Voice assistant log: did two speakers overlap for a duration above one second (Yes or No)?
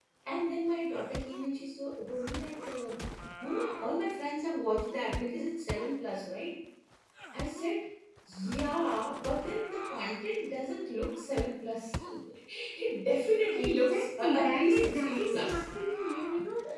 Yes